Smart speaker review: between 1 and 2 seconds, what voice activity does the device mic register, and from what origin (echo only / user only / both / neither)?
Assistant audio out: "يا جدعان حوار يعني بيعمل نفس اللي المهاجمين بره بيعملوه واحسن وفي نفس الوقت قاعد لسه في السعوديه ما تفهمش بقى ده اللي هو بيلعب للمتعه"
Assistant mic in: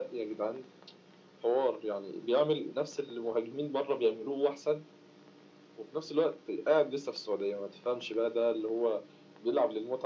echo only